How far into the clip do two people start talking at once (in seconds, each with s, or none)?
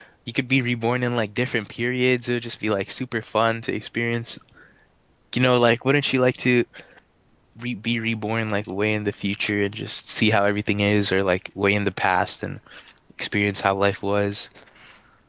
none